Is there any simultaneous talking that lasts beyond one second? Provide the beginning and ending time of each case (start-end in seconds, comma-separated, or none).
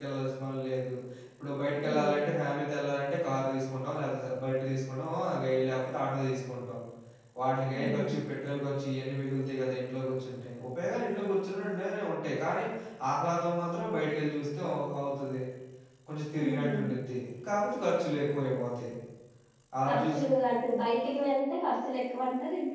none